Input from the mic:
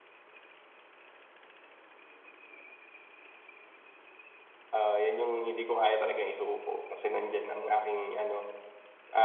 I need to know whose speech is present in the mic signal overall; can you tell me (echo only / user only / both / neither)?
user only